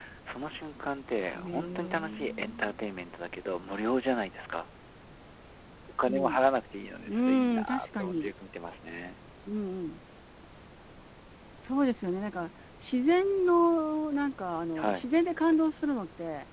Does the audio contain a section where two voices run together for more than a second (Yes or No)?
Yes